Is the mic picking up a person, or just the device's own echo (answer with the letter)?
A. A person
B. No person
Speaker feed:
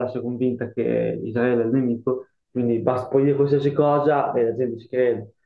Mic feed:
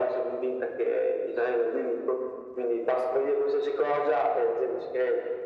B